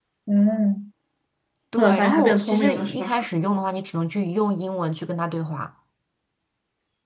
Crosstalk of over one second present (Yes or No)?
Yes